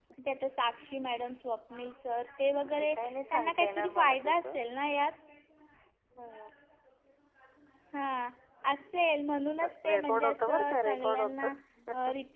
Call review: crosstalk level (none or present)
present